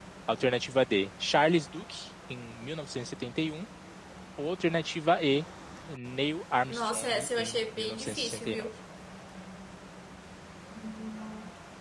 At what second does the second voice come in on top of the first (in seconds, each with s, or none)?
6.7 s